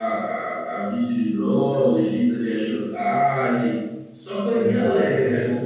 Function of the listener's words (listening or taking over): taking over